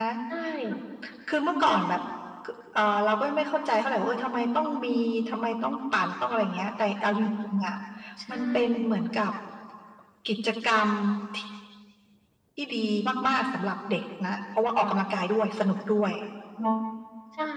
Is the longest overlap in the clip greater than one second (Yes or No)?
No